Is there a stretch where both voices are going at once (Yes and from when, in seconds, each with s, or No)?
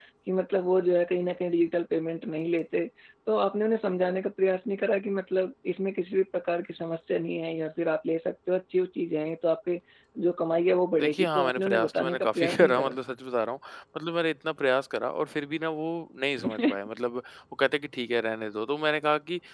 Yes, from 10.9 s